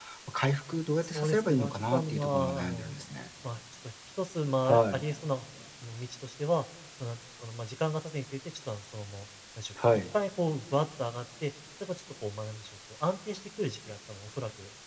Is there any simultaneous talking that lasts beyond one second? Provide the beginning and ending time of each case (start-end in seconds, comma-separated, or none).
1.0-3.0